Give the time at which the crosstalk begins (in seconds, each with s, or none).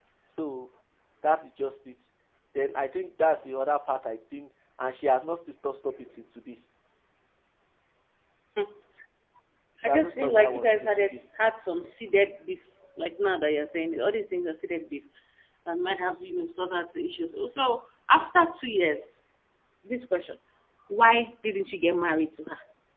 9.8 s